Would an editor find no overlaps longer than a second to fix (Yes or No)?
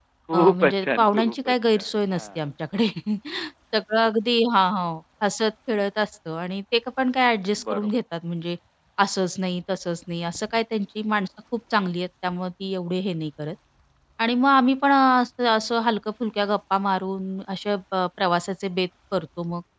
No